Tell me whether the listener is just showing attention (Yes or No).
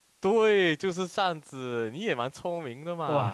No